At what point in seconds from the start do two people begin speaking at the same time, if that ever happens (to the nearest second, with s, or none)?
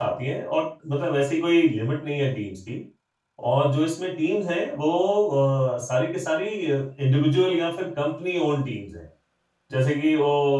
none